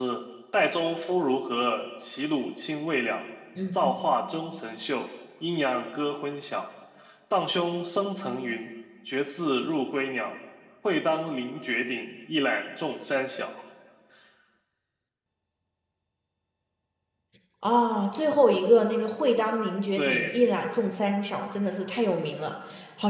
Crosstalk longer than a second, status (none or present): none